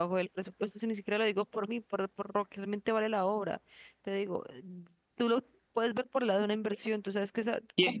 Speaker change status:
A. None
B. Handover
B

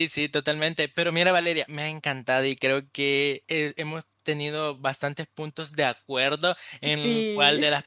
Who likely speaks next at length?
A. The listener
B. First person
B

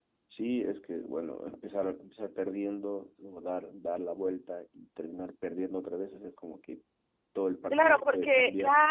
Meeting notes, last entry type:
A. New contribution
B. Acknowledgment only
A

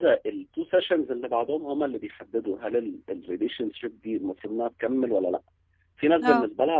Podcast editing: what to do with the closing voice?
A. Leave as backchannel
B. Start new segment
A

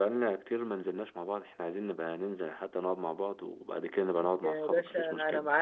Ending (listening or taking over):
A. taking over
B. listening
A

